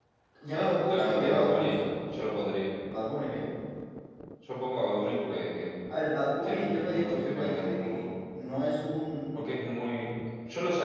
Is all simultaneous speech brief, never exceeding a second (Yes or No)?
No